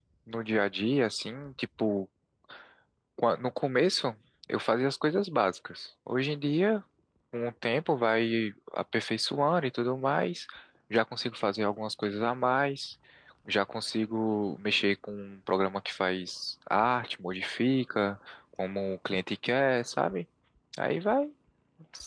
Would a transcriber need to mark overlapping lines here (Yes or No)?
No